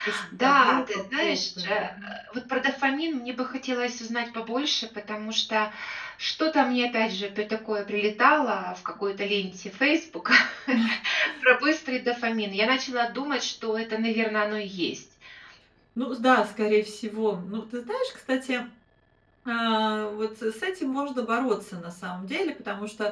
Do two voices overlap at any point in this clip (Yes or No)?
Yes